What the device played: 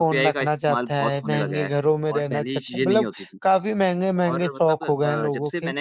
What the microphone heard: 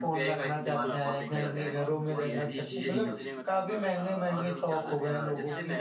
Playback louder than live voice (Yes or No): Yes